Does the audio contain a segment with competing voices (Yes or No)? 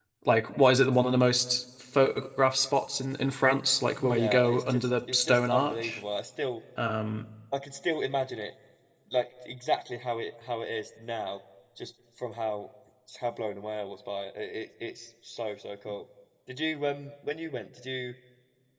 Yes